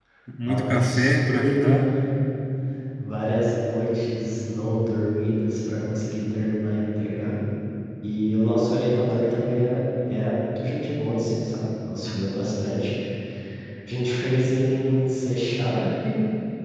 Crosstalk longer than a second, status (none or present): present